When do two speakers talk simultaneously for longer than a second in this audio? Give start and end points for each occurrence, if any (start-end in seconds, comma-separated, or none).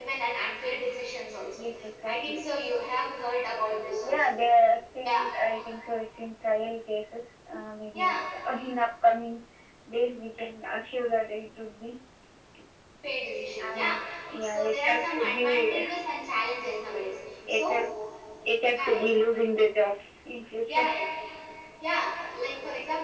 14.4-15.8